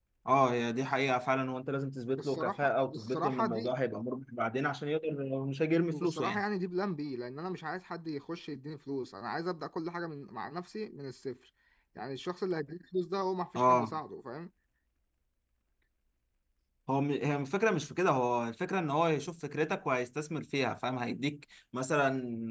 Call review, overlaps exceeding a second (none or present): present